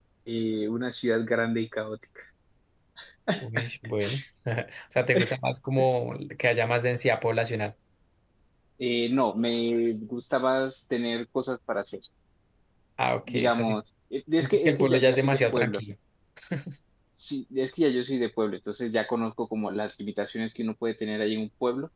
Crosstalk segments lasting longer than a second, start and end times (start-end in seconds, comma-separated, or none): 14.4-15.8